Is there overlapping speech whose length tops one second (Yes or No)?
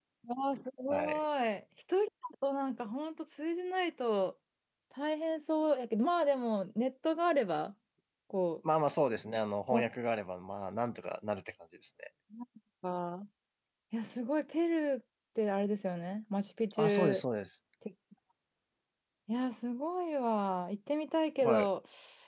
No